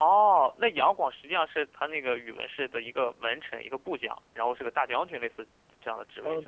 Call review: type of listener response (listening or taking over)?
taking over